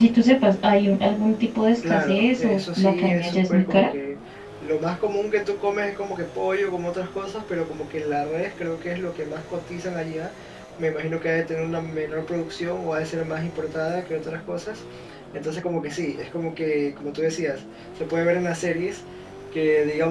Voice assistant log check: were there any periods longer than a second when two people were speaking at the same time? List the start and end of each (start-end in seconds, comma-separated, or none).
1.9-3.9